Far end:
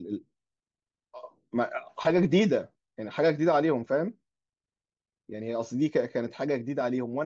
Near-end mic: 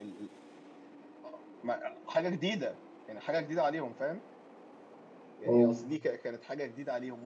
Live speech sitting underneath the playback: No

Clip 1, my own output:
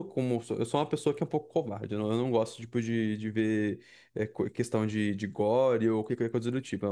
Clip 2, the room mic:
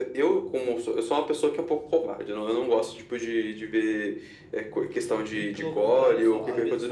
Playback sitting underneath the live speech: No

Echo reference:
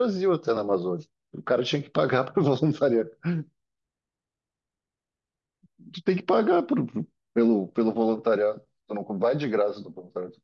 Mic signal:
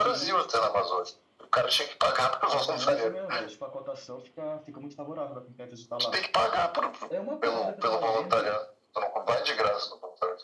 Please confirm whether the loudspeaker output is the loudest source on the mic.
Yes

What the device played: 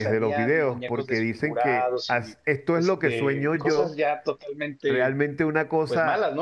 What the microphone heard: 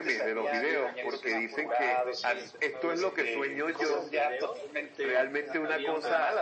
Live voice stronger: No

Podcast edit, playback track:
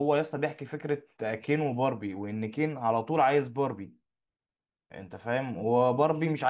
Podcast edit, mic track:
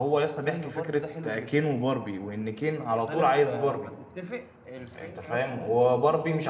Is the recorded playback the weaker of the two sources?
No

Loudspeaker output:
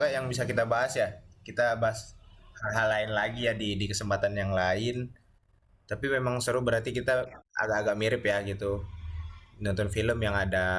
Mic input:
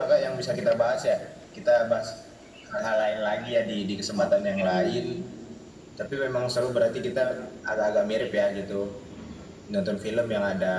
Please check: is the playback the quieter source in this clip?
No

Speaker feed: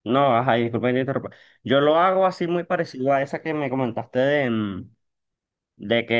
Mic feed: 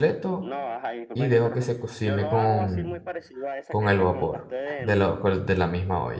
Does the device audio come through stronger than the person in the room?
No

